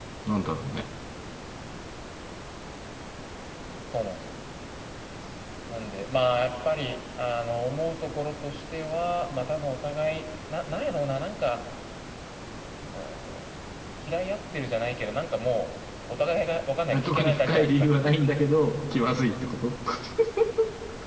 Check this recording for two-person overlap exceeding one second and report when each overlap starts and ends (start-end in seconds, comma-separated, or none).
16.9-18.5